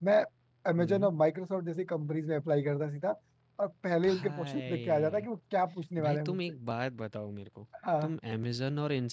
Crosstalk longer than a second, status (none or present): present